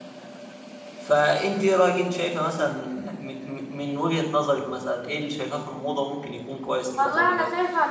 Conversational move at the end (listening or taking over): taking over